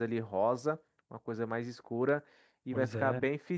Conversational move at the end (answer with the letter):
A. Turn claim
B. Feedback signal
B